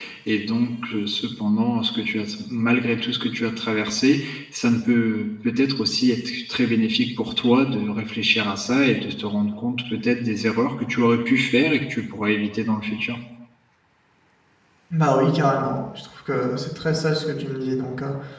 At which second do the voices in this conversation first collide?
none

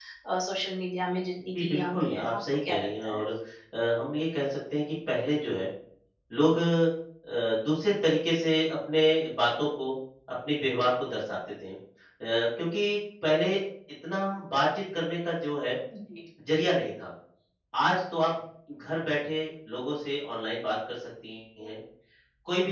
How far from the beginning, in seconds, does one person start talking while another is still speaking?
1.5 s

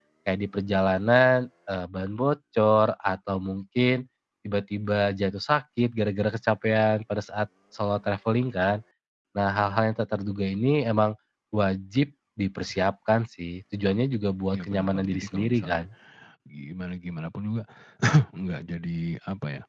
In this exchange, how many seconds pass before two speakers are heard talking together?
14.5 s

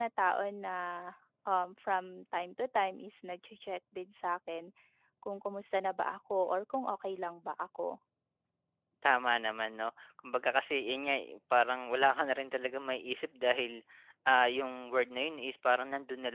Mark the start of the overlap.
none

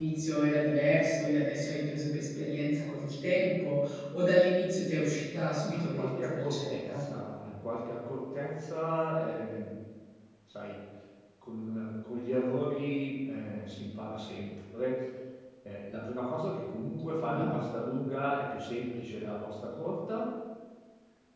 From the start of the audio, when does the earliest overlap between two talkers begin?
5.7 s

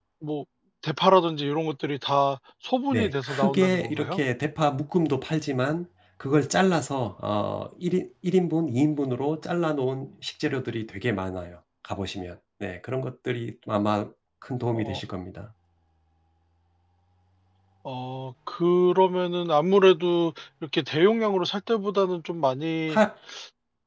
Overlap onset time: 2.9 s

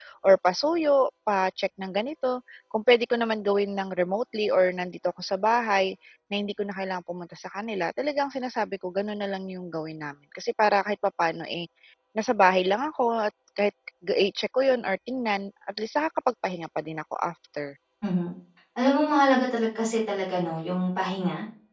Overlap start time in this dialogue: none

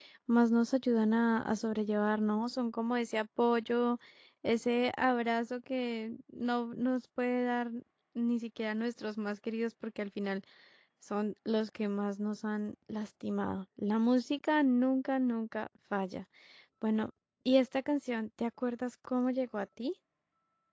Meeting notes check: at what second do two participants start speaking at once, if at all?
none

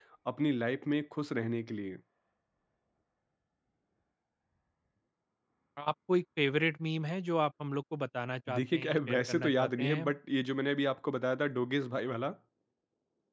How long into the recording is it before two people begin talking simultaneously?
8.5 s

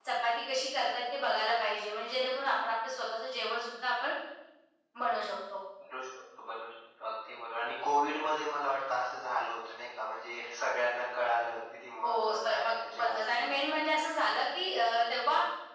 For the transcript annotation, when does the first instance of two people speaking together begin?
12.0 s

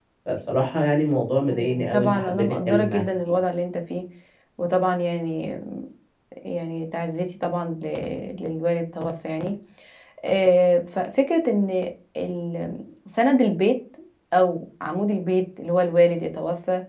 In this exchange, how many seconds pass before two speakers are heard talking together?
1.5 s

